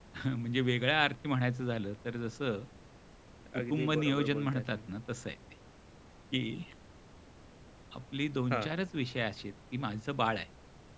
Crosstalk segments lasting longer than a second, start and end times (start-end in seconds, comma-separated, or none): 3.6-4.9